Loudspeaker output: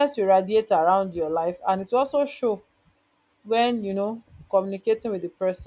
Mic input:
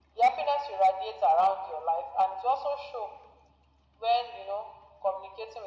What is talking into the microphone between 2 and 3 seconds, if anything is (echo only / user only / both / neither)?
echo only